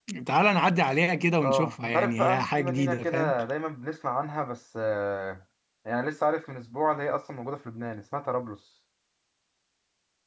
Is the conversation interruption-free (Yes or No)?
No